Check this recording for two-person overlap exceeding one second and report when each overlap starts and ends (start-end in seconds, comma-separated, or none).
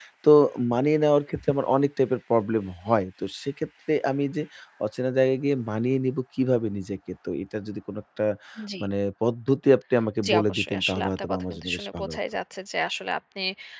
10.3-12.2